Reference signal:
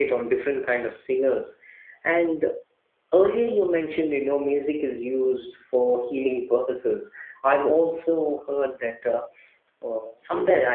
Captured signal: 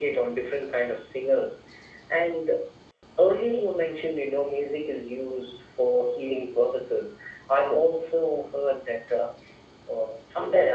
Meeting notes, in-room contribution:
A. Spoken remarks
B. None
B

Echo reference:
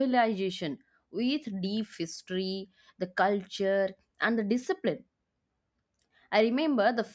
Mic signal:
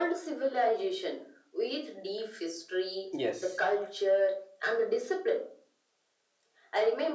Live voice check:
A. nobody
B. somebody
B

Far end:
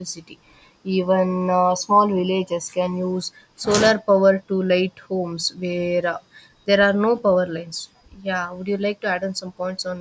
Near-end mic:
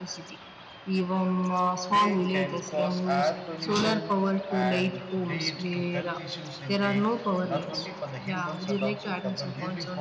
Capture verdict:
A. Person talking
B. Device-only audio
A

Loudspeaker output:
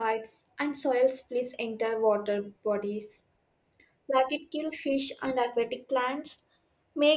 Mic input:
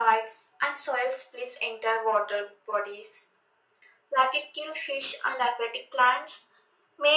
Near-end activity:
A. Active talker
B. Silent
B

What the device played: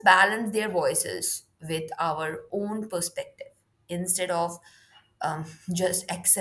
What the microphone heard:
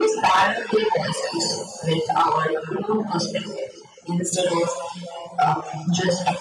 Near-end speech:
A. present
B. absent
B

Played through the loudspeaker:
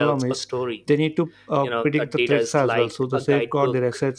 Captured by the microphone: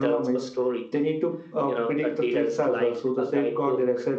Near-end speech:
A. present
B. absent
B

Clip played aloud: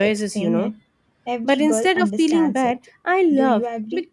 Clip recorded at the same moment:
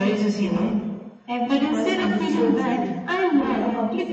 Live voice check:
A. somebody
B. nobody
A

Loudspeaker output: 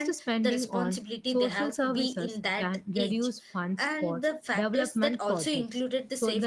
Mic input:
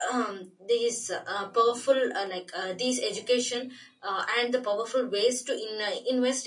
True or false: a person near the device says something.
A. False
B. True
B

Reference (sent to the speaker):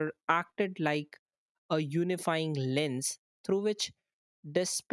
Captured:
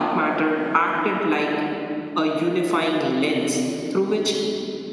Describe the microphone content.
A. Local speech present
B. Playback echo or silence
B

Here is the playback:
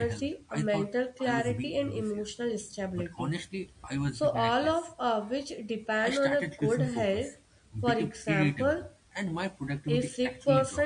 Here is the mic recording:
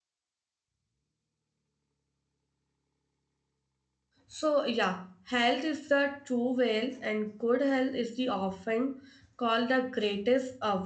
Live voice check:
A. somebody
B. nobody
A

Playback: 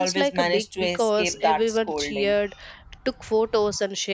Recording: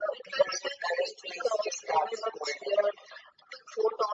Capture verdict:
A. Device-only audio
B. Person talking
A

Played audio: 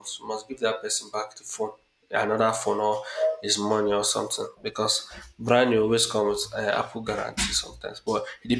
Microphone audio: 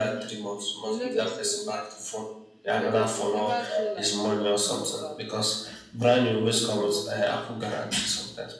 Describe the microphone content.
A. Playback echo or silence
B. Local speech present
B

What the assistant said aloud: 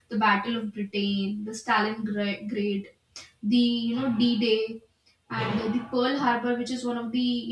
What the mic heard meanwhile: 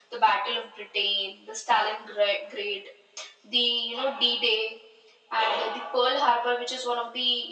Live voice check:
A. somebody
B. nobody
B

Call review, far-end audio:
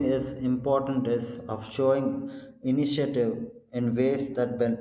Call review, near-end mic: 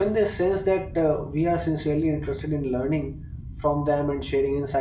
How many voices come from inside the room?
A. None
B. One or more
B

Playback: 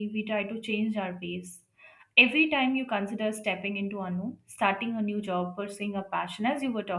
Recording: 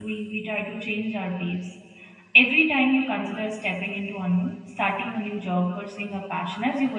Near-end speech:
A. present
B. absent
B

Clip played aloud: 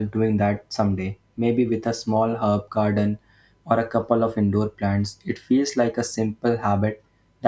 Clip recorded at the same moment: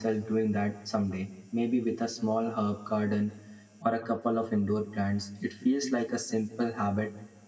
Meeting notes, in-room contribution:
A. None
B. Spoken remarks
A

